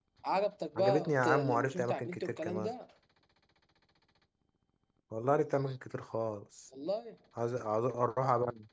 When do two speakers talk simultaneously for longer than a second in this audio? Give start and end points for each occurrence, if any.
0.8-2.7

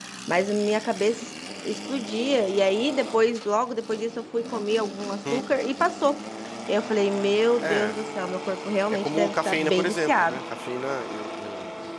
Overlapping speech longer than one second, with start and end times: 8.9-10.4

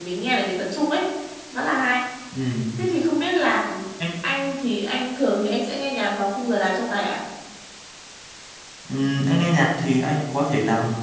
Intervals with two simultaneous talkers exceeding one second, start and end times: none

